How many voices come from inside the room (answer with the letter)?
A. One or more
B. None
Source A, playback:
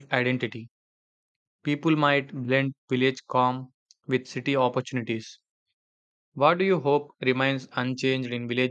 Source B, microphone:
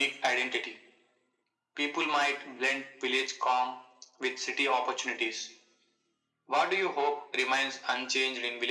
B